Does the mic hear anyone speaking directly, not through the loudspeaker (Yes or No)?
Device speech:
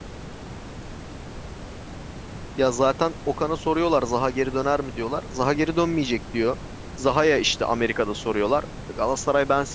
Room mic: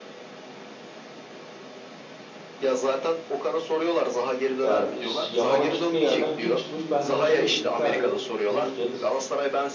Yes